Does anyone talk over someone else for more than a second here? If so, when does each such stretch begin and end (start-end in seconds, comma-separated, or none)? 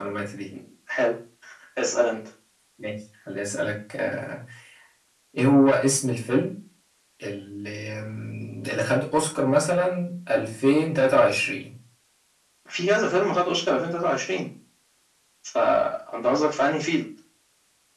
none